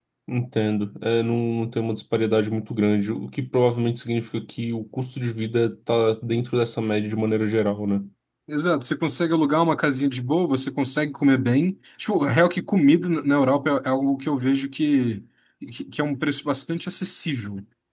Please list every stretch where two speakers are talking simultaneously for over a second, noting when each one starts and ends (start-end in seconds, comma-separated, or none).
none